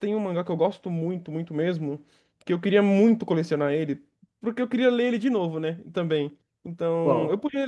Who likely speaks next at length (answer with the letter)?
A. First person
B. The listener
A